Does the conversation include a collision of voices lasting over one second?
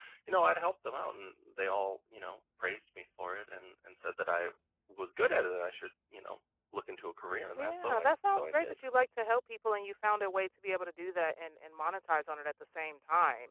Yes, from 7.6 s

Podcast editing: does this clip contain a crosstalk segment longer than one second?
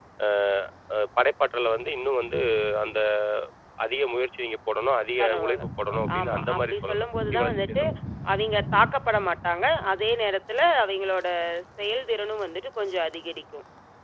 Yes, from 5.2 s

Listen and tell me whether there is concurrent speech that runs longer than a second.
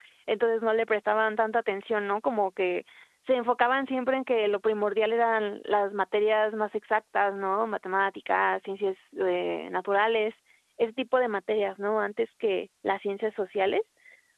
No

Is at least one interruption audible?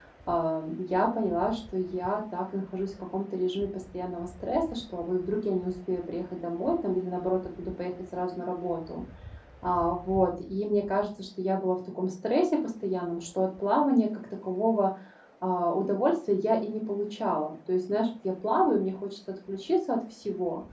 No

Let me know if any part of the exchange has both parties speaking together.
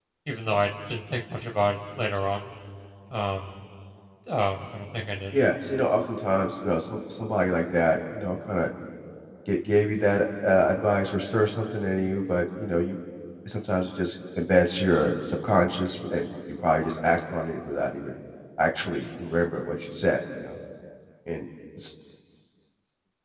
No

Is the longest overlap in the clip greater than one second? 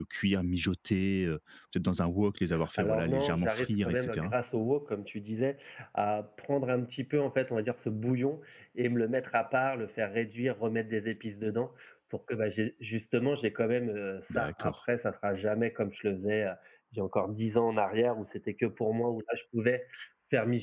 Yes, from 2.8 s

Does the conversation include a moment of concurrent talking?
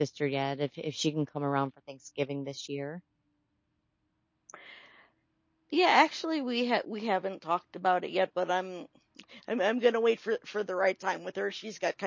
No

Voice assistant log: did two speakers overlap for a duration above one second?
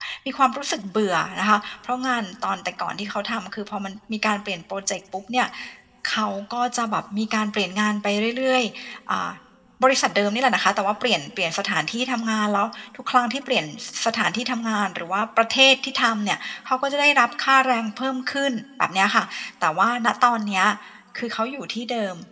No

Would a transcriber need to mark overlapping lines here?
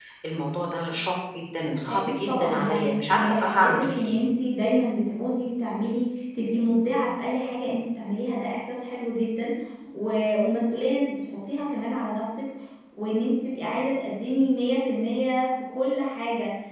Yes, from 1.8 s

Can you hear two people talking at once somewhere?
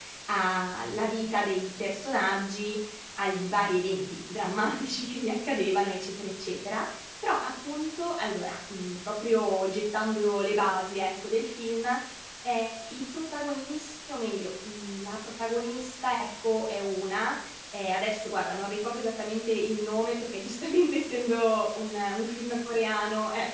No

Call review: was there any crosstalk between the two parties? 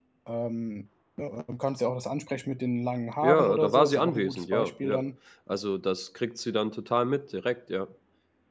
Yes, from 3.2 s

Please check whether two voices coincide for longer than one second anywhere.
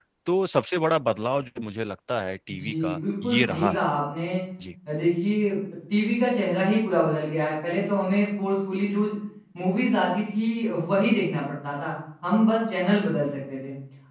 Yes, from 2.5 s

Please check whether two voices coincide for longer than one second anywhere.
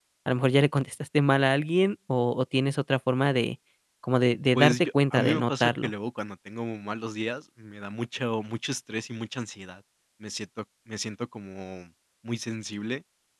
Yes, from 4.5 s

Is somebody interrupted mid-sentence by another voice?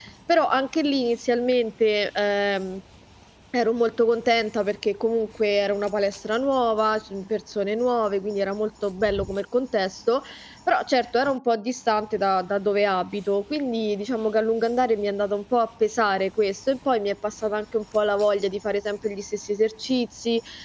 No

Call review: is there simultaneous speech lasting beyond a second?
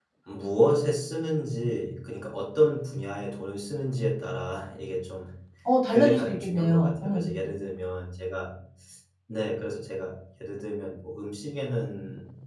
Yes, from 5.9 s

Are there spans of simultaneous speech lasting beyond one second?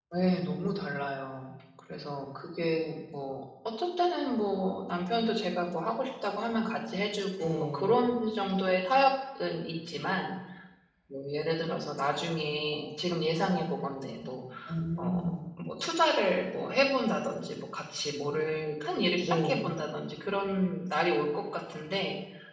No

